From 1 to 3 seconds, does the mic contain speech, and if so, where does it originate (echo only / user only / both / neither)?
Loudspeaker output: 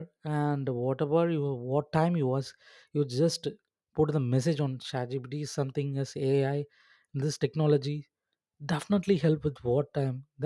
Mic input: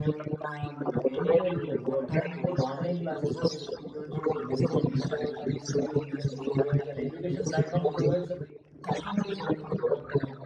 both